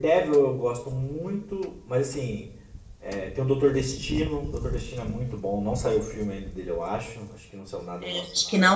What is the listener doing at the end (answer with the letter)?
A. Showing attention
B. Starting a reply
B